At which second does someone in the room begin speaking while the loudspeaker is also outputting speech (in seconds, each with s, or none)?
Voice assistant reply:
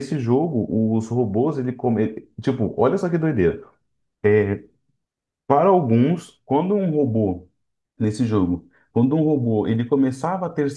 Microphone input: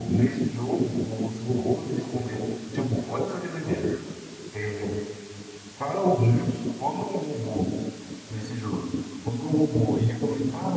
none